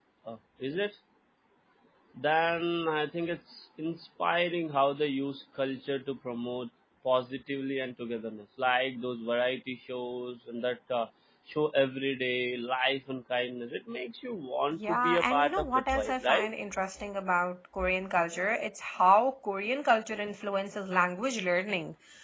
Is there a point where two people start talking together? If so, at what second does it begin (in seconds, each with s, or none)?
14.8 s